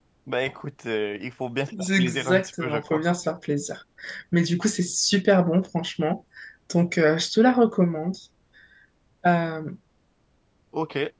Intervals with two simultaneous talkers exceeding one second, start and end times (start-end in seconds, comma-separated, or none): 1.8-3.0